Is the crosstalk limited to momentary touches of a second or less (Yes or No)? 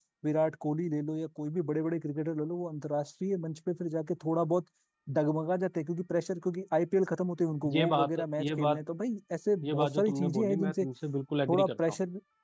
No